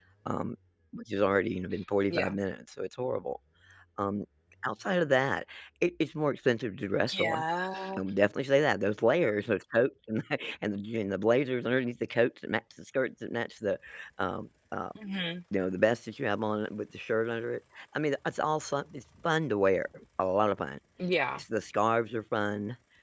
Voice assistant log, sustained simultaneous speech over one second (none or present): none